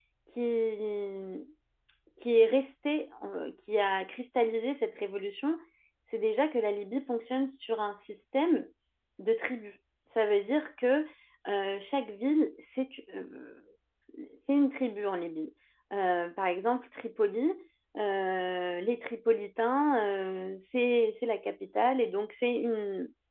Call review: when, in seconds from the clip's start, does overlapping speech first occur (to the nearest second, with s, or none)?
none